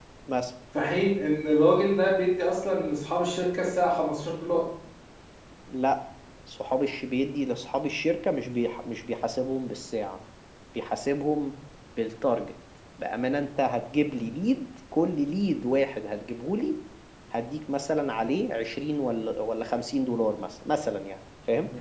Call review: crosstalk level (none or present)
none